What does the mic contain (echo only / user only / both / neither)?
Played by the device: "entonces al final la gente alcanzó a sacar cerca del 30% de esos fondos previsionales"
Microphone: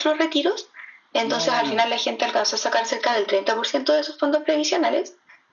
both